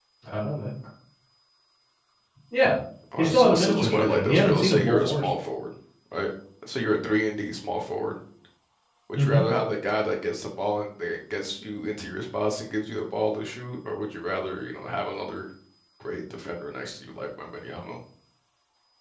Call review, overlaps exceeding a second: present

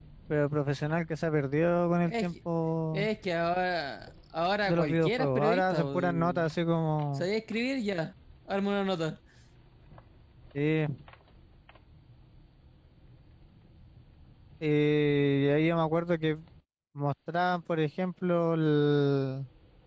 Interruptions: present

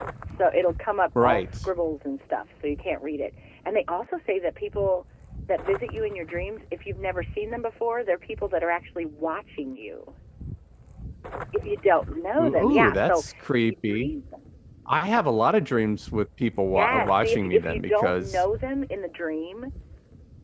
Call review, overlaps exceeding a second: present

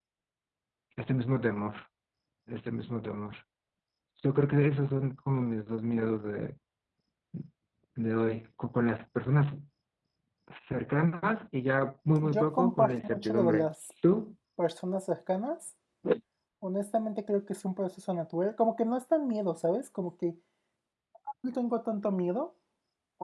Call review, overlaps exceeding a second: present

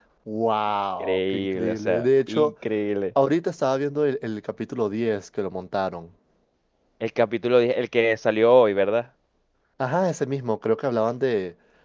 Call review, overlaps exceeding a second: present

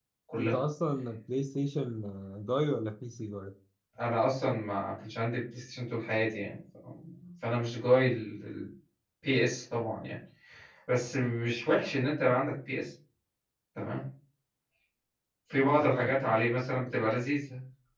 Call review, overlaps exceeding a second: none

